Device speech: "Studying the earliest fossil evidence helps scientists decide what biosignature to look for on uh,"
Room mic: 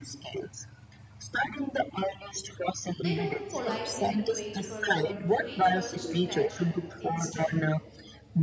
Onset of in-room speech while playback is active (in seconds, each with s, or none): 3.0 s